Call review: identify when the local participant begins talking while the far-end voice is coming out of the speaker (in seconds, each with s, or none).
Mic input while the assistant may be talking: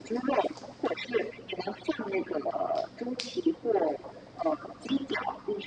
none